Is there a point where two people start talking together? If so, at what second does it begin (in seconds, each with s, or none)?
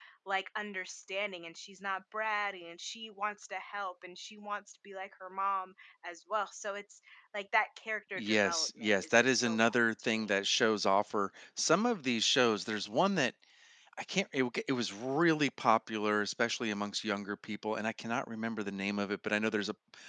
8.2 s